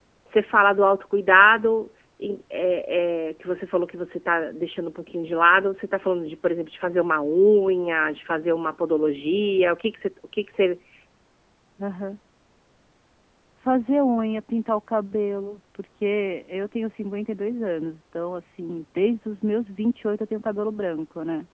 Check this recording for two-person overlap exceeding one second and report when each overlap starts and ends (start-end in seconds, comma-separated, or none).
none